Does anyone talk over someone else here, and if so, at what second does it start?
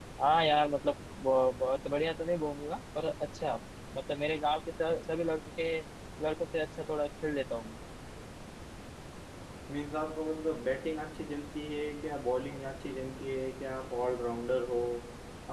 none

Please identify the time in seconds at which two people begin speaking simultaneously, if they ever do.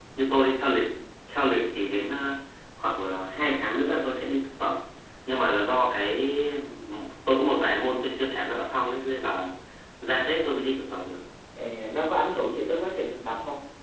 none

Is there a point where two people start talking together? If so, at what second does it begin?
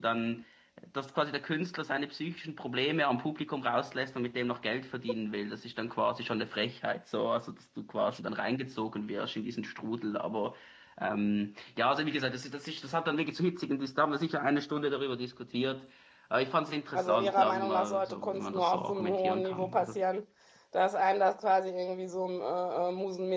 16.9 s

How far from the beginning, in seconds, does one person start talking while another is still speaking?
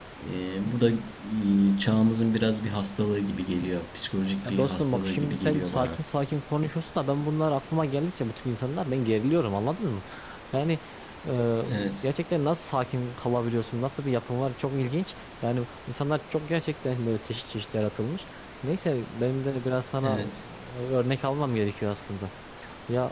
4.4 s

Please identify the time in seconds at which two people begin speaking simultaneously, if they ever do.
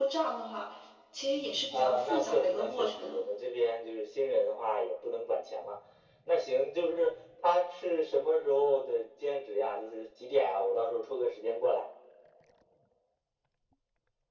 1.7 s

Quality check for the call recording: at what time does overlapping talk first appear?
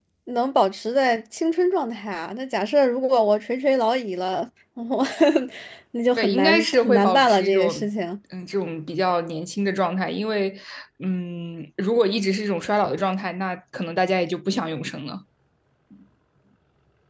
6.2 s

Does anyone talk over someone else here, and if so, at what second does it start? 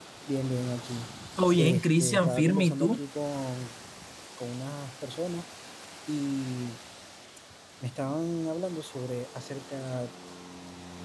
1.6 s

